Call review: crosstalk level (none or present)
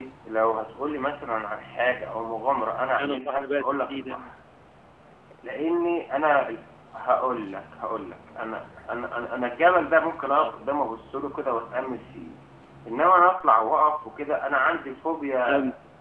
present